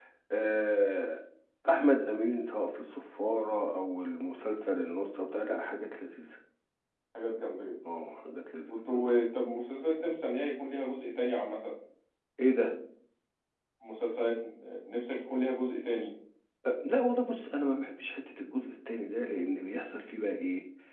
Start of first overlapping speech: none

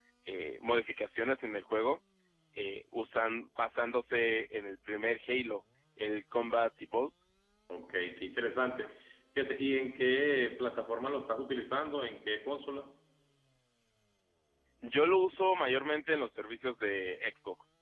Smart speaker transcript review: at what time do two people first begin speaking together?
none

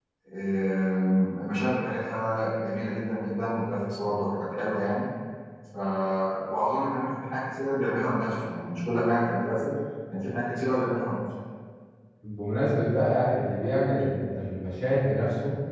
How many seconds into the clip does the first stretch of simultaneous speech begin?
none

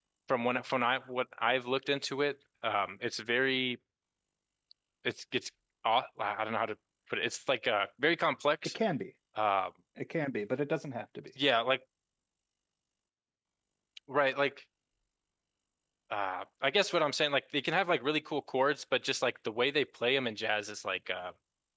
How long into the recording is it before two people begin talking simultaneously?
none

